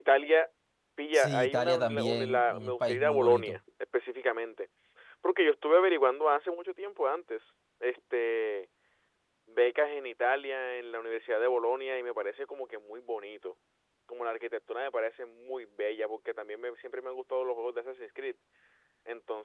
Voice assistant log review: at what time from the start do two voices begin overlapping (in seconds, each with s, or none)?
1.1 s